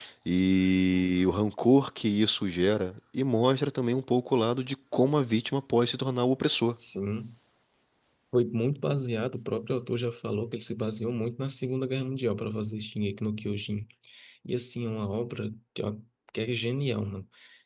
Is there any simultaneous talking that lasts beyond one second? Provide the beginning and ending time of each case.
none

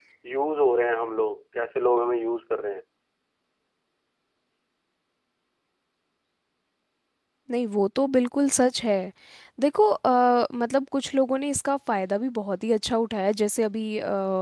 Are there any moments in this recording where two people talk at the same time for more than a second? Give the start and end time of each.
none

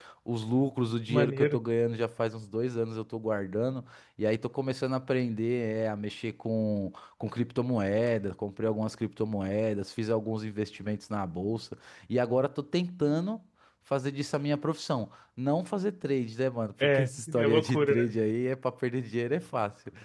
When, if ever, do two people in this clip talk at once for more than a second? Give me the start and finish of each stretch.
16.8-18.1

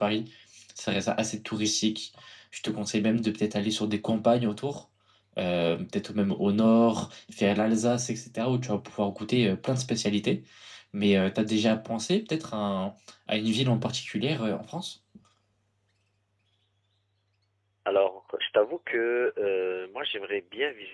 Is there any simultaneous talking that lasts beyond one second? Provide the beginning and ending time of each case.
none

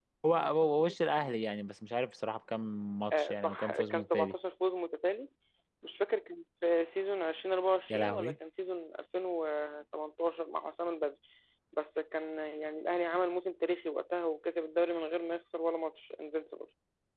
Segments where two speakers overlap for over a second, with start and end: 3.1-4.3

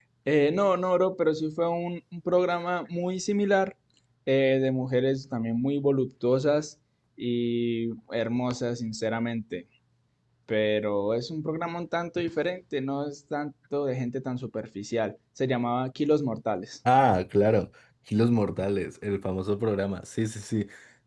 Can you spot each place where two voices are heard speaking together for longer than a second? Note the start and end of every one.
none

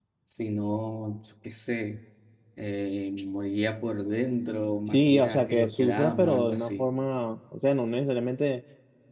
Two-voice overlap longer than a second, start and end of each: 4.9-6.9

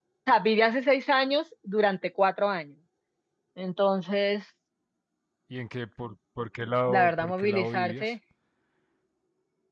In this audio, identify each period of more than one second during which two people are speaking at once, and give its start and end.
6.9-8.1

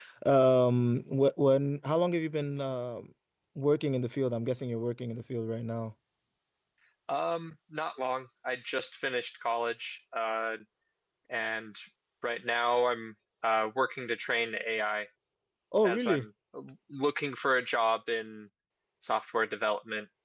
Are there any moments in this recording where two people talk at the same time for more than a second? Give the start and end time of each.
none

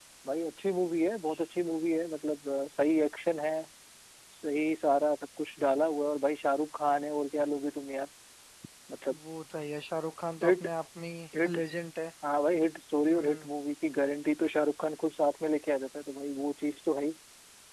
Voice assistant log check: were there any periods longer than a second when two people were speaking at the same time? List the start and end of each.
none

